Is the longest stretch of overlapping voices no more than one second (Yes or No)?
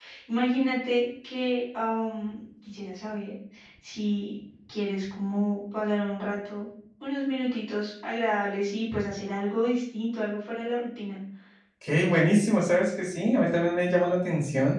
Yes